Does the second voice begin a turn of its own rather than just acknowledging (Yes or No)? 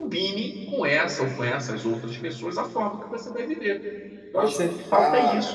Yes